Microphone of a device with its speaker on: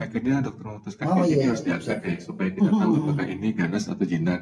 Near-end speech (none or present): present